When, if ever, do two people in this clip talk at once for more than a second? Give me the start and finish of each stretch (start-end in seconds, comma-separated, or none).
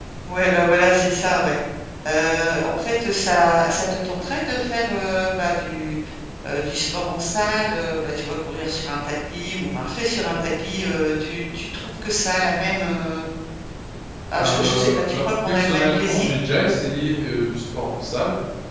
14.4-16.4